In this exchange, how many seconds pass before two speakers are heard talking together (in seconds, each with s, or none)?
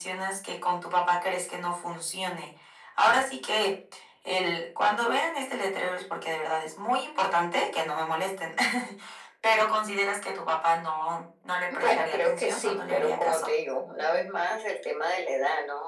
11.7 s